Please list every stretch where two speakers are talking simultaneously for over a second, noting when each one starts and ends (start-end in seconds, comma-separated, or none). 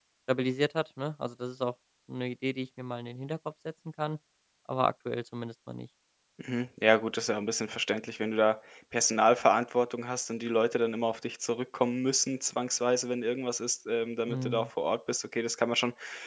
none